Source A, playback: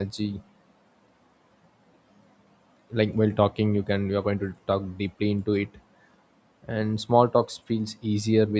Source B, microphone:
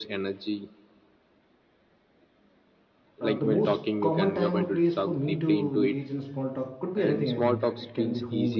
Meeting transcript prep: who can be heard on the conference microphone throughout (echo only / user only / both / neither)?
both